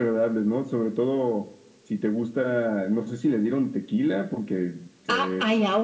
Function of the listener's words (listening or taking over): taking over